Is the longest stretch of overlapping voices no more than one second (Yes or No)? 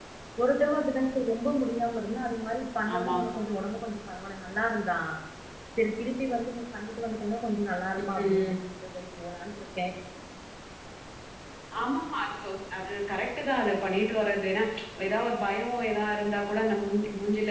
Yes